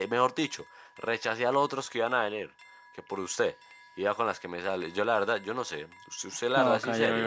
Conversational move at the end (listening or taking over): taking over